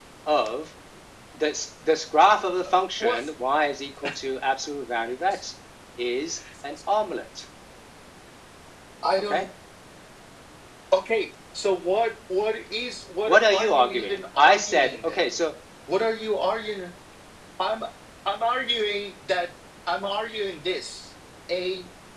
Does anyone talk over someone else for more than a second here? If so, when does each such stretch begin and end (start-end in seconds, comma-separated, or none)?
13.3-15.3